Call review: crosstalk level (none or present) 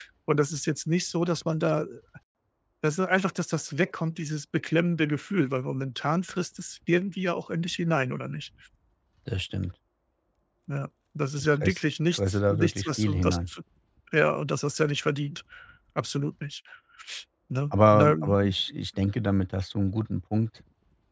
present